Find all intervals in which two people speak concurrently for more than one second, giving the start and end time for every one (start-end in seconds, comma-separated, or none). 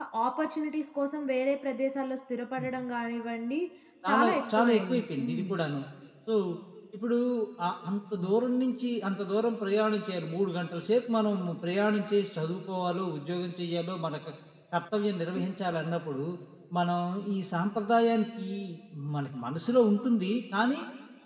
4.1-5.5